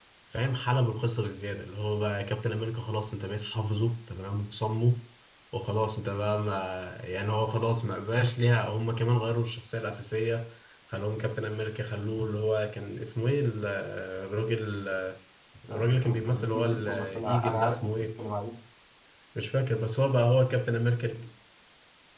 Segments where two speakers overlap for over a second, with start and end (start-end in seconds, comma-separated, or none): 15.7-18.1